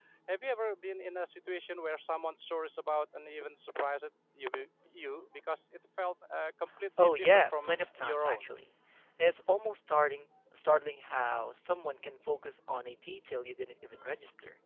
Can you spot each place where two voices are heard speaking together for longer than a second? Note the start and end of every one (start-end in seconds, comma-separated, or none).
7.0-8.6